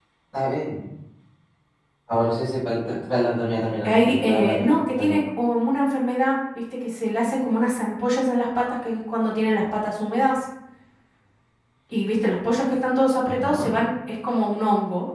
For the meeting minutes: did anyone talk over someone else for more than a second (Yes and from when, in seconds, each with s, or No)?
Yes, from 3.8 s